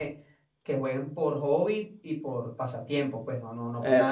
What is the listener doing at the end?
listening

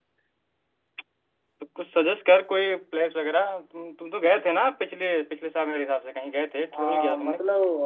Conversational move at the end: taking over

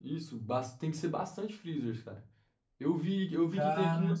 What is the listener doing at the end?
listening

